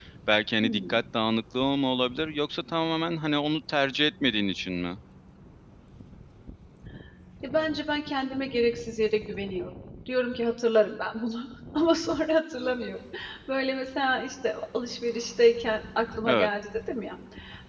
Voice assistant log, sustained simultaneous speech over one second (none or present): none